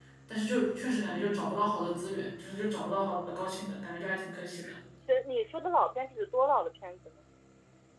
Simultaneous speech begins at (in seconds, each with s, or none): none